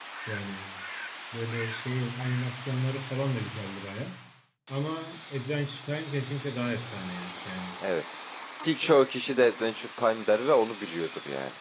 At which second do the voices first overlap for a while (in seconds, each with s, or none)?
none